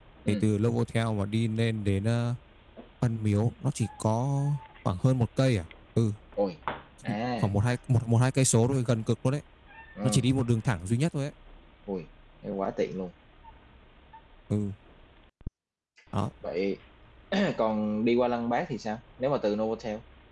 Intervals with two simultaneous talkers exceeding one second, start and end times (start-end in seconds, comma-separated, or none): none